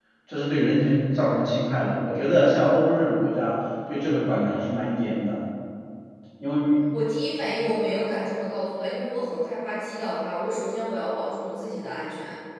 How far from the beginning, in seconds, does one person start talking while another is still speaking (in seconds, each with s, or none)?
none